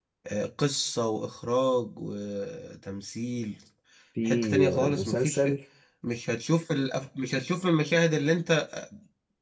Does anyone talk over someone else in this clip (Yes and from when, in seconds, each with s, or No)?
Yes, from 4.2 s